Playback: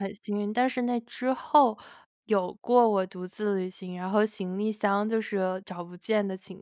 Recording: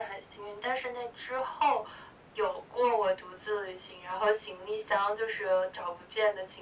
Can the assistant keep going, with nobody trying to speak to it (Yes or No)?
Yes